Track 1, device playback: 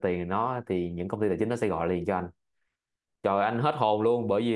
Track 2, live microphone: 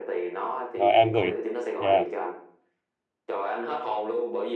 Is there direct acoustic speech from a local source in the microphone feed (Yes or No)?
Yes